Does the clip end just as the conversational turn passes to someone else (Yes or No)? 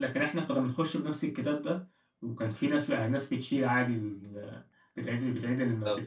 No